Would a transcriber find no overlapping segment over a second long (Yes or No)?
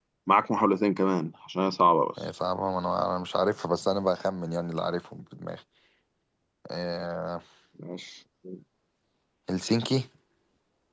Yes